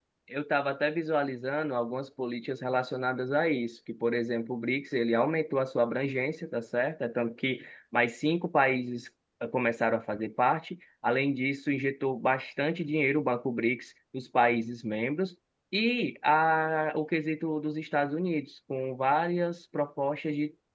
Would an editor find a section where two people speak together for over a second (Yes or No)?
No